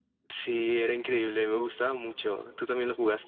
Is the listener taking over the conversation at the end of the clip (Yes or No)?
Yes